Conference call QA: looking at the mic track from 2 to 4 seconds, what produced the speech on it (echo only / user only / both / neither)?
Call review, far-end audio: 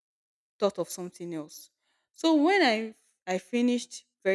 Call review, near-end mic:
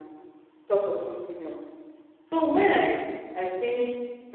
echo only